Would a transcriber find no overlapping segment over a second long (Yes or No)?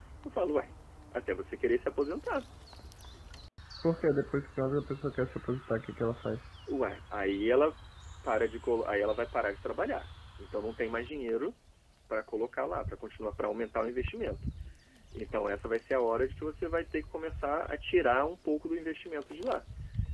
Yes